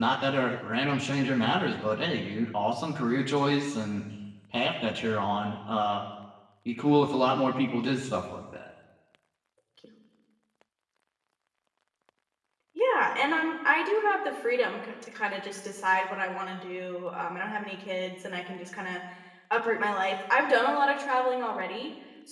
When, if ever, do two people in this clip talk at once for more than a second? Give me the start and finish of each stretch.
none

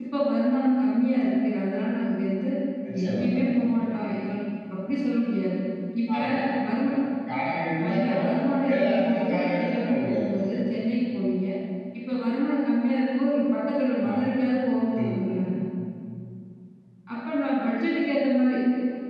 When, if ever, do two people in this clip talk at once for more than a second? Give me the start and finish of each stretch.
8.8-10.4

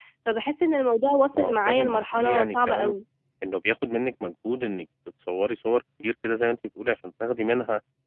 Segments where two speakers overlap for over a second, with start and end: 1.4-2.9

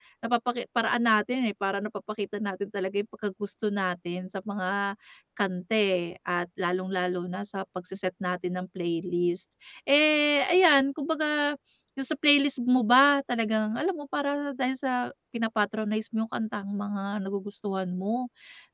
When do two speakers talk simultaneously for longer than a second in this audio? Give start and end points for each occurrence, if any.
none

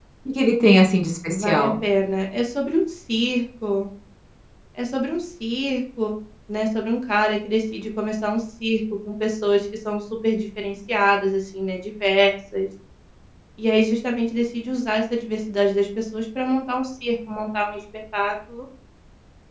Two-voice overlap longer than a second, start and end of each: none

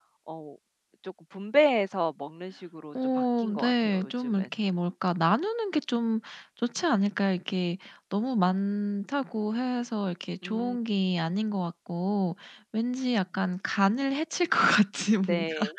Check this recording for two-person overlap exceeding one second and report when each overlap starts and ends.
3.1-4.5

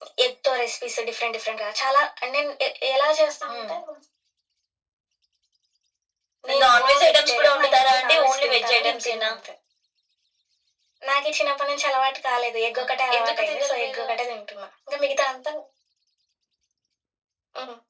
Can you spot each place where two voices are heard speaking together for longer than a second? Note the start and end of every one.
6.6-9.3, 12.8-14.1

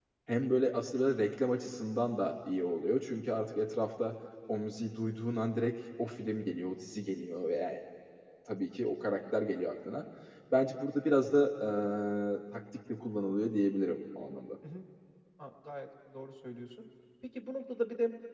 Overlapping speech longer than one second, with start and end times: none

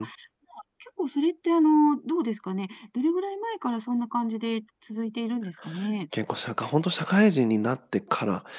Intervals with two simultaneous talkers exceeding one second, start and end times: none

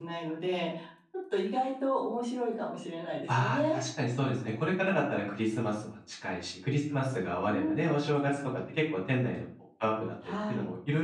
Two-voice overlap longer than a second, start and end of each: none

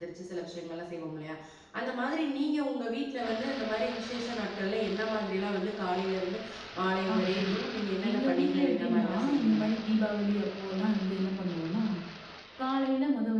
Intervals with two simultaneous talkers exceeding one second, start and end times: 8.1-9.6

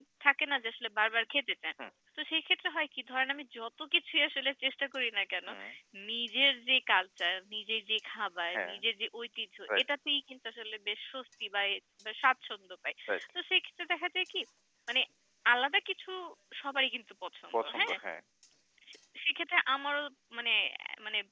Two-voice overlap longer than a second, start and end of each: none

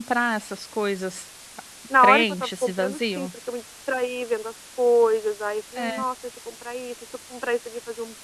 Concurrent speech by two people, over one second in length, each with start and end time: 2.0-3.3

